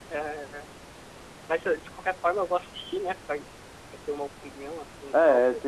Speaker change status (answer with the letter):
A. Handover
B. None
A